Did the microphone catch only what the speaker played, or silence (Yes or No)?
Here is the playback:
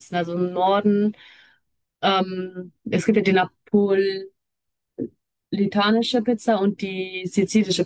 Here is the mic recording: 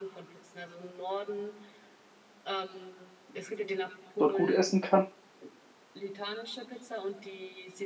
No